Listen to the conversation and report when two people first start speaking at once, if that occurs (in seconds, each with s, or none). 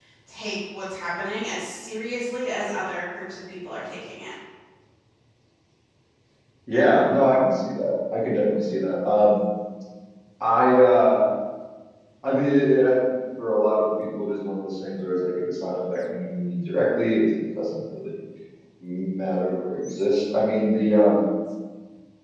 none